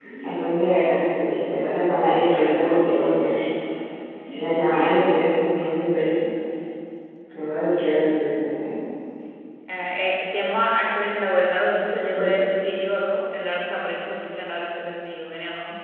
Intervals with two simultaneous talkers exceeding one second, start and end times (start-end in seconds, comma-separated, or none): none